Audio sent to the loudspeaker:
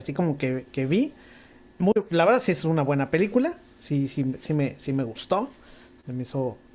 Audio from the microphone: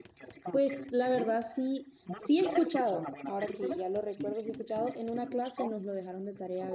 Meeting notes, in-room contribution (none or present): present